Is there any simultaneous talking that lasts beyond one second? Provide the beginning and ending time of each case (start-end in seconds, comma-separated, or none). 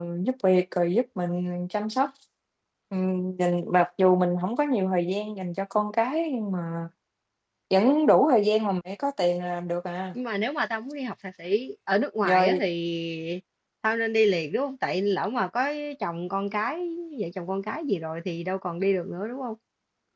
none